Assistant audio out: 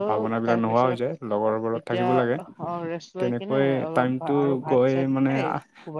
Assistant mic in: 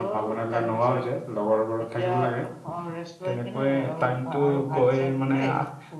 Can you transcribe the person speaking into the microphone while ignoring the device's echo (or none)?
none